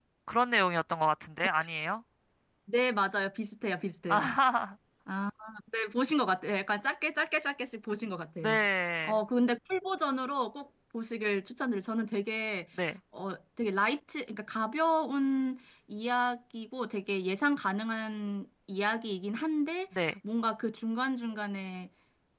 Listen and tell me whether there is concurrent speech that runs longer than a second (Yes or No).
No